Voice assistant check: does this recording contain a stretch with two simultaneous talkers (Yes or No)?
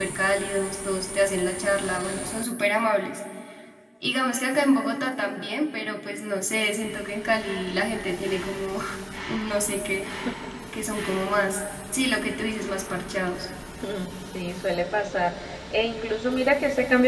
No